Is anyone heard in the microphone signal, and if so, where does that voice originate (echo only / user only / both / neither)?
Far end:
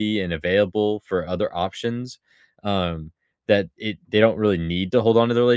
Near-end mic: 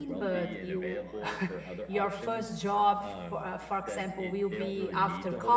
both